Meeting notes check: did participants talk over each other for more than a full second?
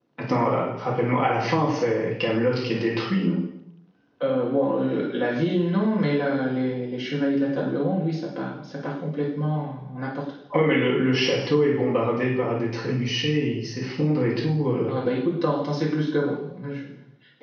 No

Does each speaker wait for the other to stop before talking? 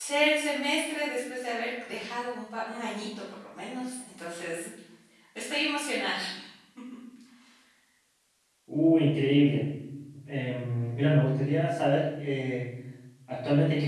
Yes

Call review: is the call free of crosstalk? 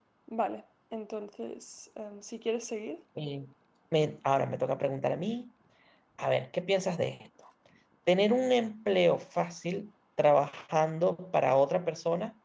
Yes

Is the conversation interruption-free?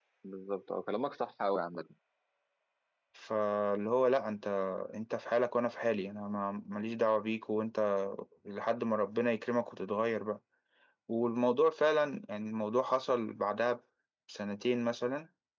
Yes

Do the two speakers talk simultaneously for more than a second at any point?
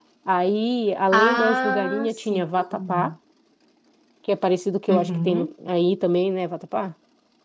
Yes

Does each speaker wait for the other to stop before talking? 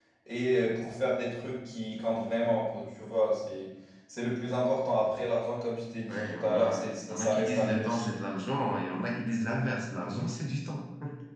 No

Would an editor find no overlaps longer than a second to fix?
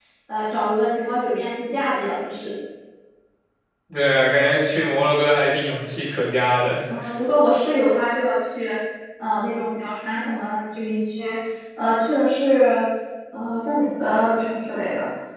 Yes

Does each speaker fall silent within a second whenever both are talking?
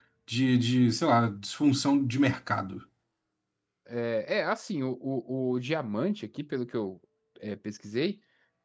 Yes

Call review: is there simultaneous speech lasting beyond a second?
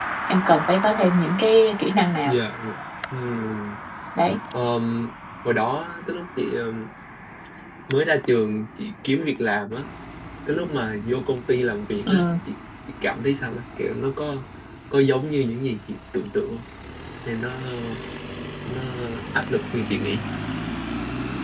No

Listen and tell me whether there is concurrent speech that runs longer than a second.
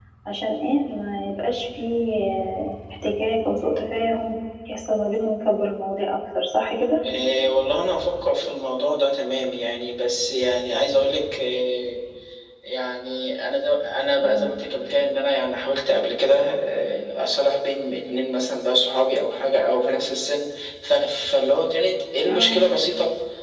No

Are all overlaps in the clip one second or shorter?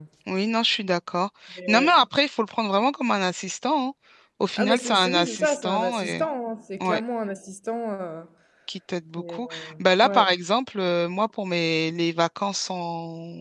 No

